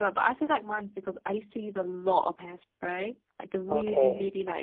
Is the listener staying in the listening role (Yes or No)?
Yes